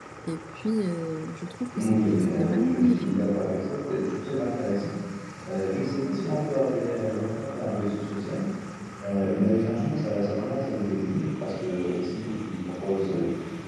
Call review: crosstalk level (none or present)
present